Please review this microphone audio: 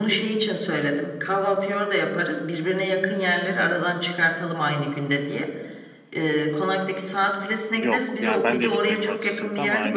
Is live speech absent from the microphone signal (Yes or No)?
No